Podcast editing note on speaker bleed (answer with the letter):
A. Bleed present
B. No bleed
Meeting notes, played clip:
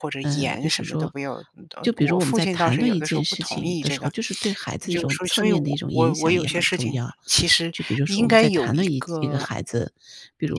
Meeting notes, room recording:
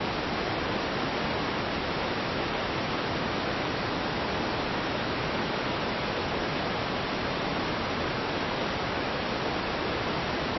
B